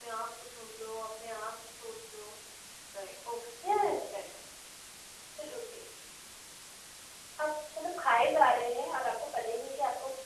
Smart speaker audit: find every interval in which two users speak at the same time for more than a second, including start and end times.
none

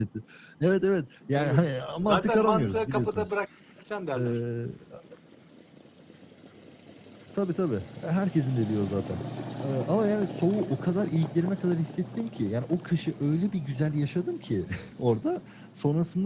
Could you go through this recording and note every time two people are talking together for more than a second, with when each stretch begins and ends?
2.0-3.3

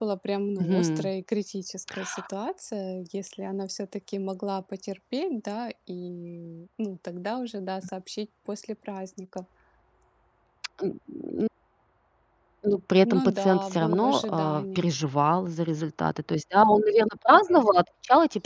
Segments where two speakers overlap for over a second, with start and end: 13.0-14.9

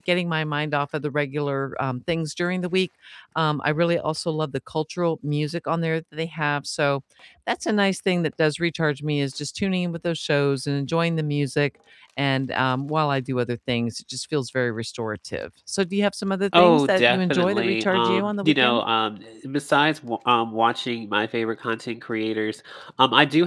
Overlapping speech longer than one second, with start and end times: 16.5-18.8

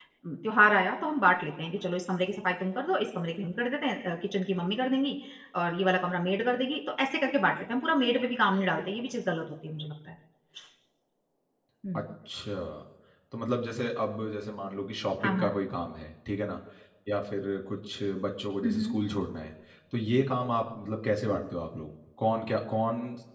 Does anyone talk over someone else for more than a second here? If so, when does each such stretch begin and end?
none

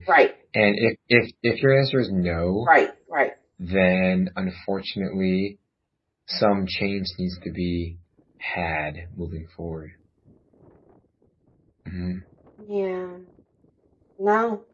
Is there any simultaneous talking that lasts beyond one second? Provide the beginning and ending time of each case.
none

